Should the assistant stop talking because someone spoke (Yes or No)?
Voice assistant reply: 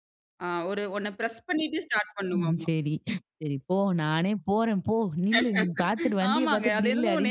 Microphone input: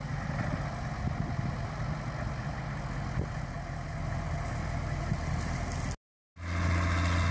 No